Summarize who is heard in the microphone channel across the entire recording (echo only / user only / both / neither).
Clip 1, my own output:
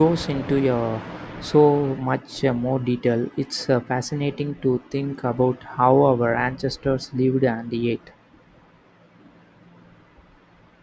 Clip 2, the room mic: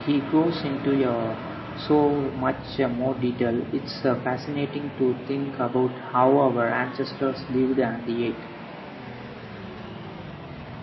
echo only